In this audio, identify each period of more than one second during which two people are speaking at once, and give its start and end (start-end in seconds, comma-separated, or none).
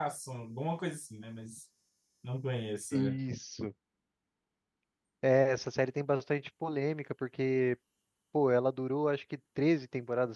none